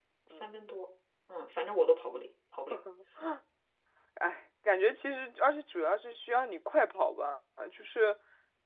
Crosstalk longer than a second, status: none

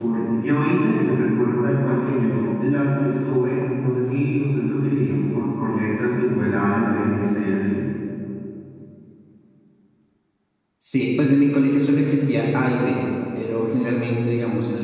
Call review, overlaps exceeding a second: none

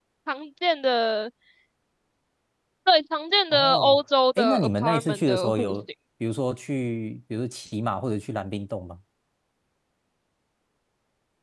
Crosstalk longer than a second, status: present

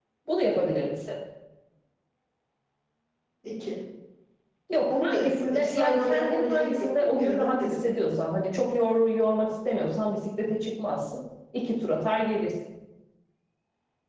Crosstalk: present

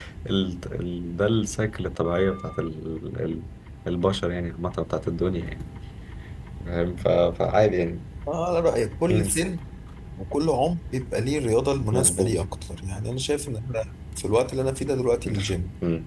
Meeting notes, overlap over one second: none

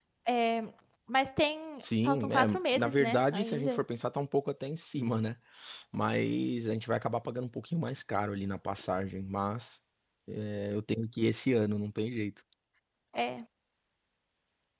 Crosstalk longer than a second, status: present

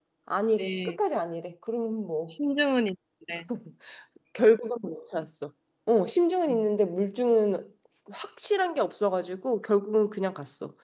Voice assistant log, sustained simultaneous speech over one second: none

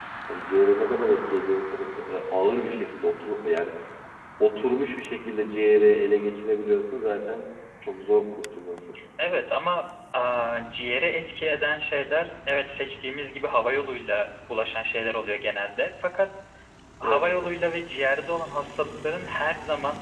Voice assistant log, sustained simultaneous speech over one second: none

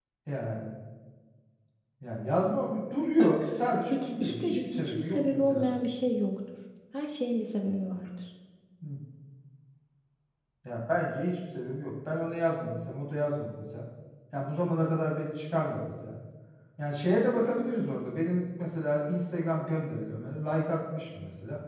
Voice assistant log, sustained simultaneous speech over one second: present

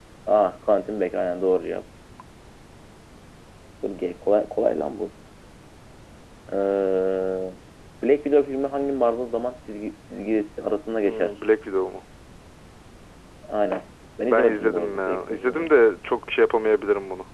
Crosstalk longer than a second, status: present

